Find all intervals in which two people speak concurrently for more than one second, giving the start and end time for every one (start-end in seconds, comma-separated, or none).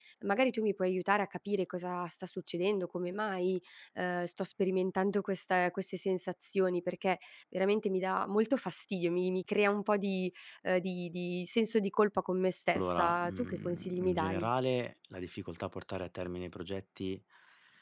12.8-14.5